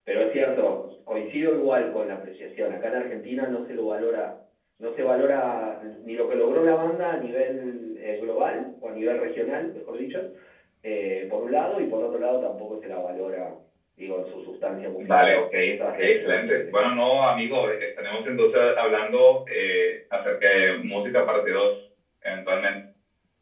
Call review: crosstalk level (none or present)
present